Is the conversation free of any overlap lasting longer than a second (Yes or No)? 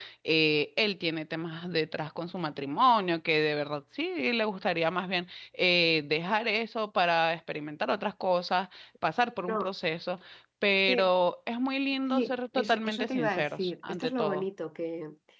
No